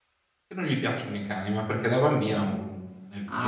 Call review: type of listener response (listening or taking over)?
taking over